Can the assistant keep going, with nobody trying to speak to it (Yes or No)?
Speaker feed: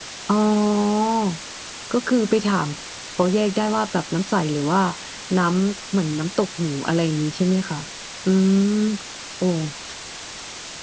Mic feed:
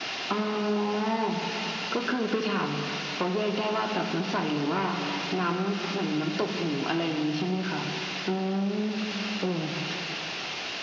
Yes